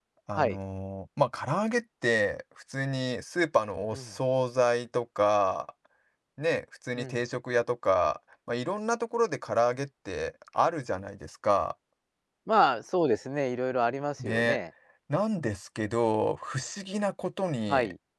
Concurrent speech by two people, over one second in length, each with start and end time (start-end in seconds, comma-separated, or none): none